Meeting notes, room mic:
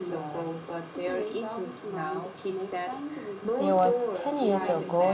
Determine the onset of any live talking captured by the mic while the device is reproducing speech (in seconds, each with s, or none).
3.6 s